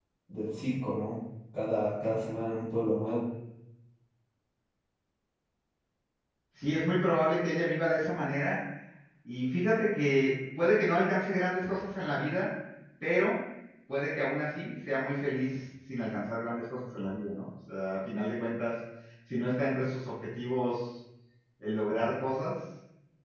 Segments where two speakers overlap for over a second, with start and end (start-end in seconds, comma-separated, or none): none